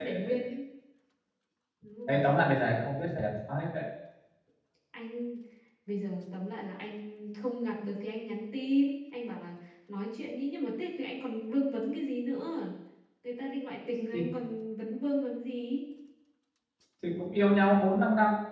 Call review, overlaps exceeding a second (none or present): none